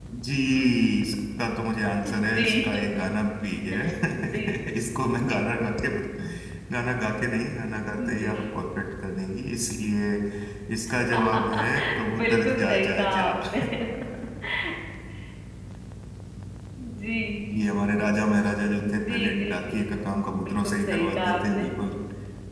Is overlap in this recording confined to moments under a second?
No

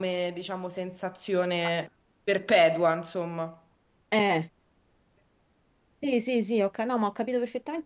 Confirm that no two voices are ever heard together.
Yes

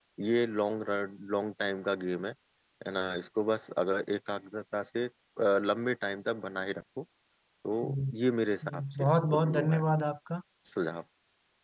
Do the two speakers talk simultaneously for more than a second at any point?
Yes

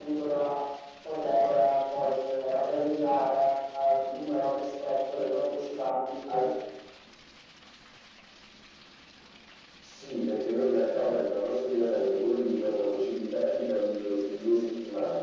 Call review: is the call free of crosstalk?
Yes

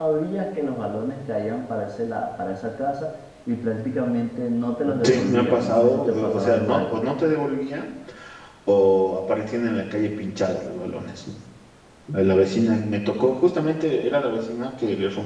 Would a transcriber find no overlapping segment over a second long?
No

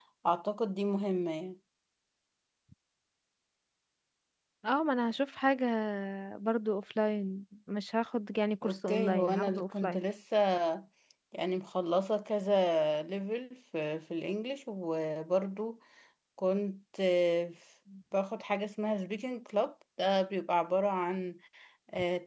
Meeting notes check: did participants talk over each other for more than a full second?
Yes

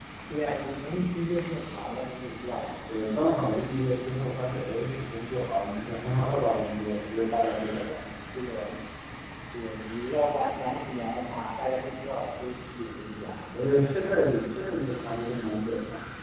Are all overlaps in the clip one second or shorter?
Yes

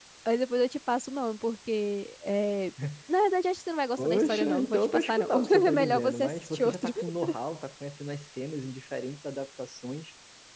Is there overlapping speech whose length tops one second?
Yes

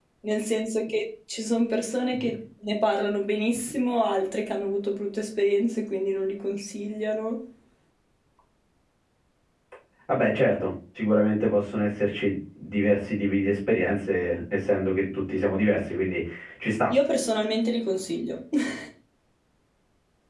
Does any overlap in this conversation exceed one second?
No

